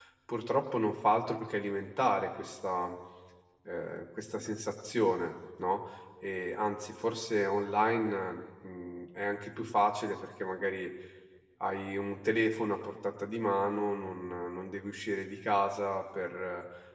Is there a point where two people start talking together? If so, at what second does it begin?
none

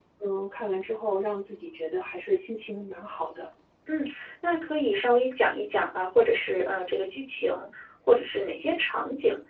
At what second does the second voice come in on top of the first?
none

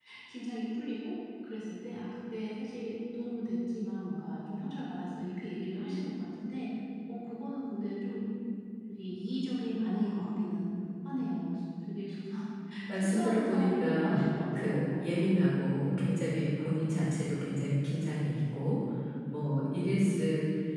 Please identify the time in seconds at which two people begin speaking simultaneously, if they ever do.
13.0 s

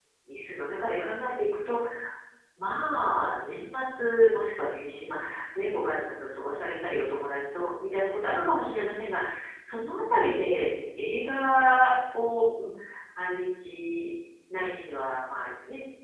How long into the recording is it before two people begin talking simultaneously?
none

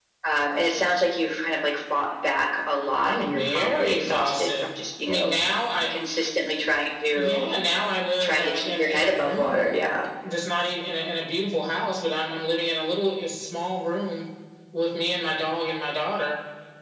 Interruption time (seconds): 3.0 s

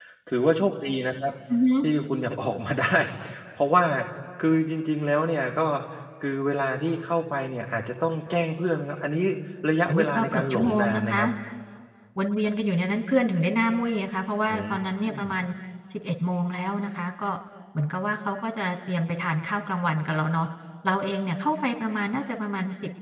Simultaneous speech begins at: 9.9 s

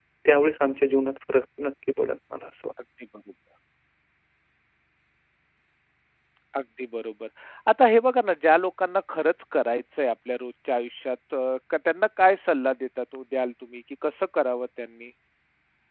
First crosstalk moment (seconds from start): none

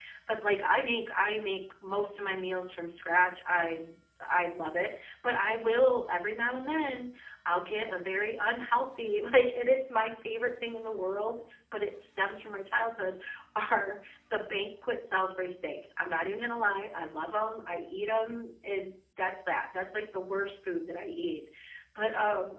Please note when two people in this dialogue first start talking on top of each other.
none

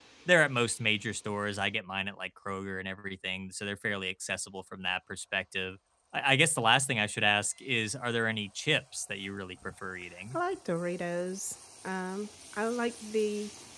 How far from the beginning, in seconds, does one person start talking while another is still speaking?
none

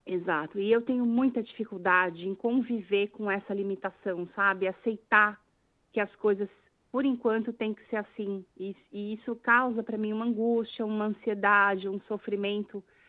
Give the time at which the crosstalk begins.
none

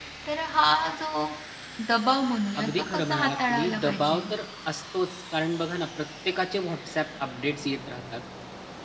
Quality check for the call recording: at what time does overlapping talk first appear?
2.6 s

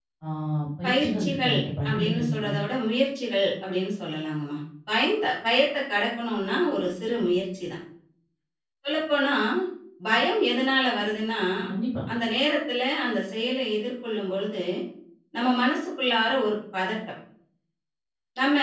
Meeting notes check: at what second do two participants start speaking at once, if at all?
0.8 s

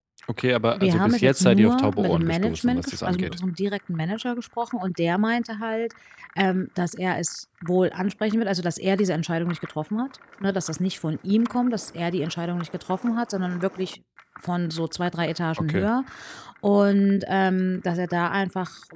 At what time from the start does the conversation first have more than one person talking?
0.7 s

